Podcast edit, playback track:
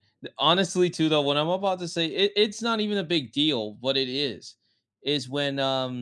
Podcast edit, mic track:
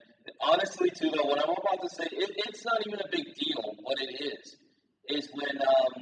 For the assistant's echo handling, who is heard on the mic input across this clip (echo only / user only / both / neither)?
echo only